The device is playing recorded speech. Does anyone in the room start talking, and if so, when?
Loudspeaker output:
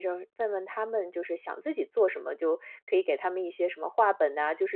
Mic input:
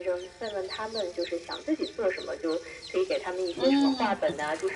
4 s

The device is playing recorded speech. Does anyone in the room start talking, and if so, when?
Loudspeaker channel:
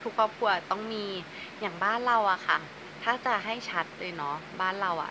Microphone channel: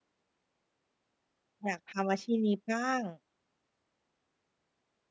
2 s

